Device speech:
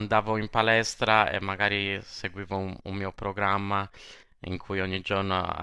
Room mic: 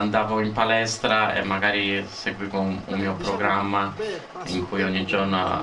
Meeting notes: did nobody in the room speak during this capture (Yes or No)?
No